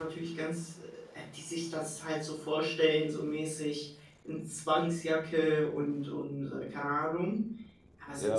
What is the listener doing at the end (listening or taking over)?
taking over